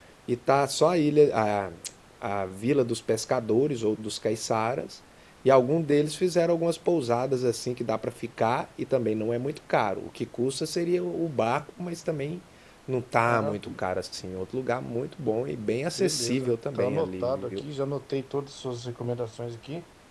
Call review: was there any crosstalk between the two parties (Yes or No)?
Yes